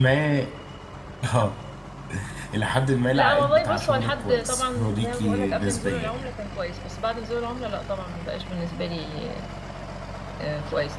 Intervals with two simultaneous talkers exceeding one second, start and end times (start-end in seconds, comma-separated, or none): 3.2-6.3